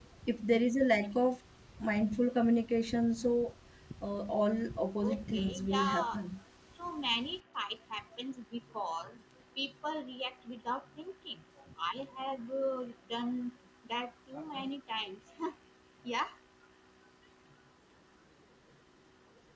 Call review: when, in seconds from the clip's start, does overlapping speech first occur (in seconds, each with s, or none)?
5.0 s